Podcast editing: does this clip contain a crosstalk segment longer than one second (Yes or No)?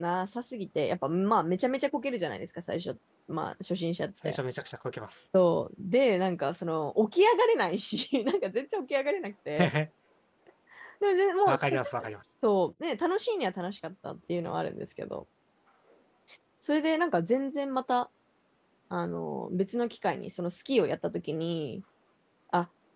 No